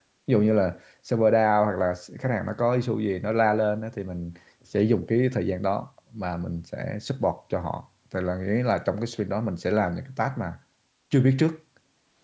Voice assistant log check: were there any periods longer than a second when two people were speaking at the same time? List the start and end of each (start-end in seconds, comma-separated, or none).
none